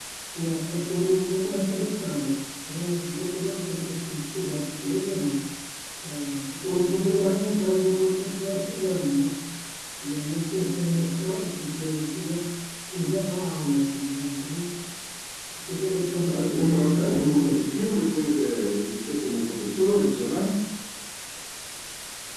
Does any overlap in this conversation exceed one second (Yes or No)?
Yes